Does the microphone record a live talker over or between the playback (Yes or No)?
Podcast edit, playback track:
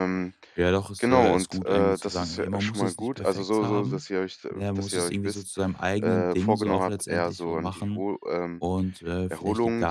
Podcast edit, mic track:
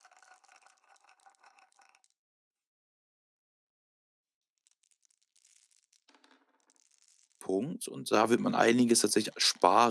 Yes